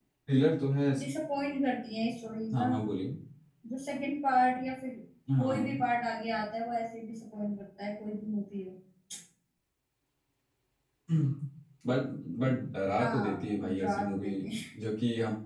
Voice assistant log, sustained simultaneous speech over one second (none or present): present